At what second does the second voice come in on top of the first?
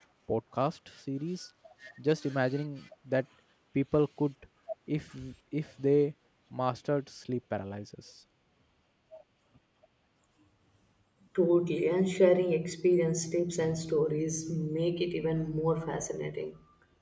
none

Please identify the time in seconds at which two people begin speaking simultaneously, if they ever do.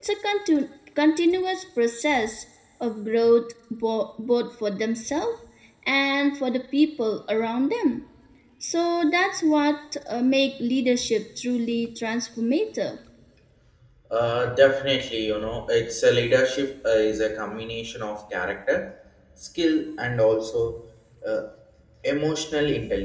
none

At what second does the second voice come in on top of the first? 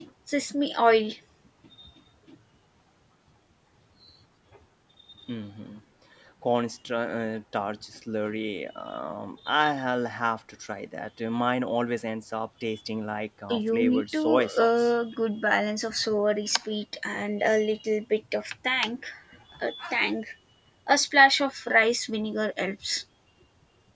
13.5 s

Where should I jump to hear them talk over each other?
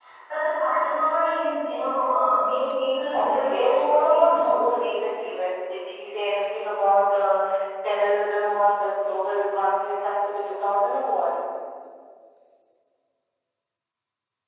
3.1 s

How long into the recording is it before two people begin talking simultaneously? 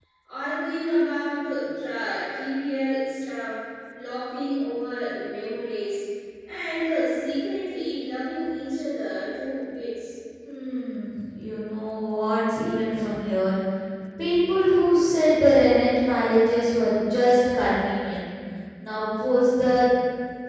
none

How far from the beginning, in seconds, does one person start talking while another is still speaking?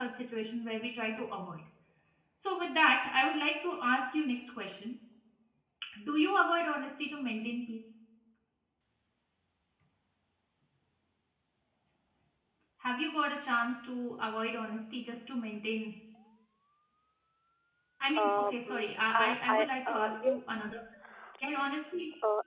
18.1 s

